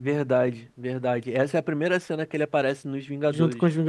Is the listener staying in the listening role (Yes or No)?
No